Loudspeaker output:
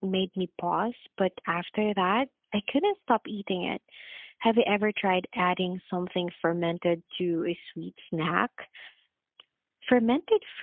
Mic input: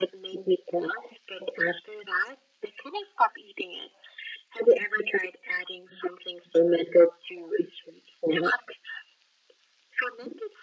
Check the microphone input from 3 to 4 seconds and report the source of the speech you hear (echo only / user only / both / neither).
echo only